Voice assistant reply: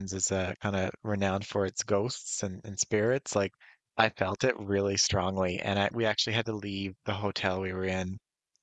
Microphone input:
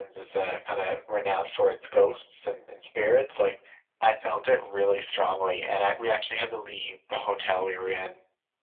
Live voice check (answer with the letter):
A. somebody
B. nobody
B